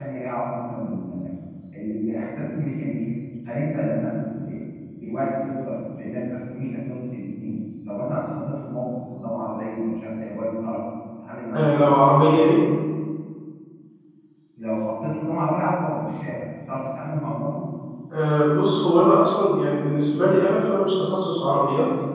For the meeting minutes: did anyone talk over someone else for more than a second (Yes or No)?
No